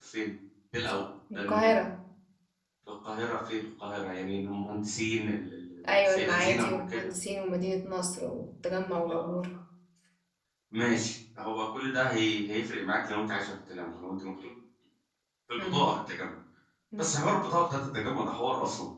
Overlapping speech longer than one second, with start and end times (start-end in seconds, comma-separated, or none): 5.9-7.1